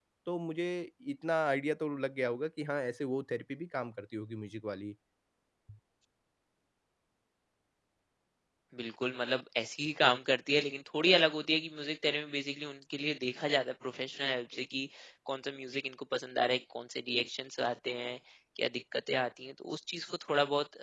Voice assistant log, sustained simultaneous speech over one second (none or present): none